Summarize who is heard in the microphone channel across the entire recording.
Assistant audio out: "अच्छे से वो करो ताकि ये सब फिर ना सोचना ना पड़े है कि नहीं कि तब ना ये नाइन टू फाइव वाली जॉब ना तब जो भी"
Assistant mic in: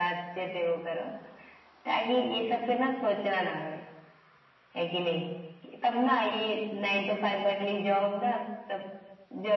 echo only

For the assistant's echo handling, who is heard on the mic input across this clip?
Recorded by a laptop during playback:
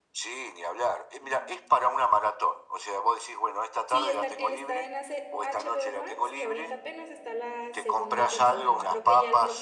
both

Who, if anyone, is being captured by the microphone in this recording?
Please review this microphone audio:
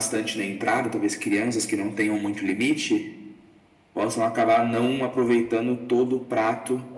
echo only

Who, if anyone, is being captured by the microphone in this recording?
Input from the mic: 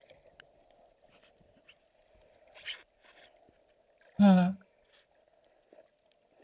user only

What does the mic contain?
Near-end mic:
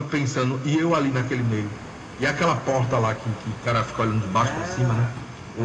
both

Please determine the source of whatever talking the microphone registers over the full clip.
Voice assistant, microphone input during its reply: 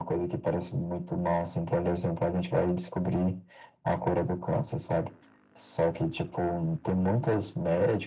echo only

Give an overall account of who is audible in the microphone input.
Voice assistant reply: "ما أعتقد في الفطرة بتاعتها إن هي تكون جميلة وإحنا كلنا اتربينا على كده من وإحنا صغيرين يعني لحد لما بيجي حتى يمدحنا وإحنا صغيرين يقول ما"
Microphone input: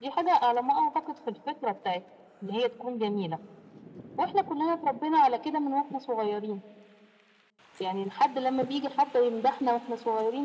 echo only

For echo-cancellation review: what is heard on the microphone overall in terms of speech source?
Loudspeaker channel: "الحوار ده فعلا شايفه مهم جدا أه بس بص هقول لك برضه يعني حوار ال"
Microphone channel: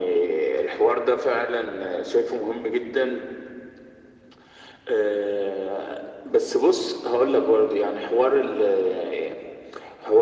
echo only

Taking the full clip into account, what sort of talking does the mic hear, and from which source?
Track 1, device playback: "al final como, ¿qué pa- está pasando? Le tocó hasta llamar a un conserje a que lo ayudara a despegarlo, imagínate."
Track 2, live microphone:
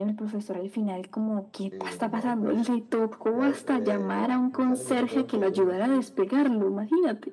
both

